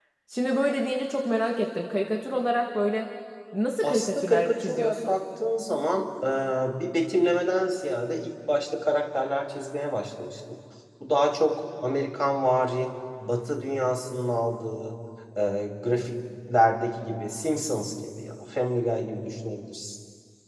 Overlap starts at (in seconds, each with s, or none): 3.8 s